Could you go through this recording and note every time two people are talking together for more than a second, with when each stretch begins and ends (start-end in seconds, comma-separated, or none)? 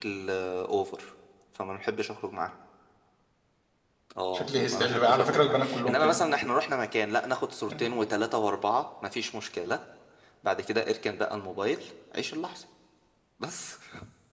4.3-6.2